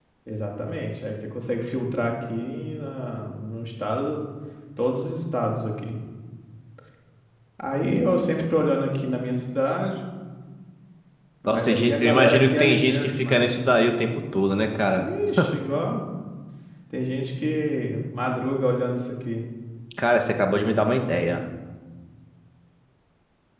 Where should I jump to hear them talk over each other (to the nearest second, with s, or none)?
11 s